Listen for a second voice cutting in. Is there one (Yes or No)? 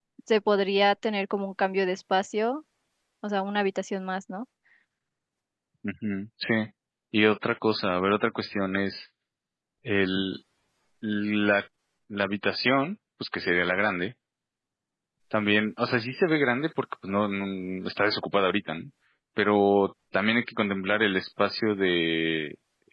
No